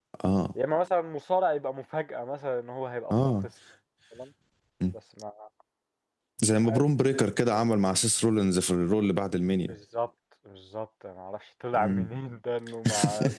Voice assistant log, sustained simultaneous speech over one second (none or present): none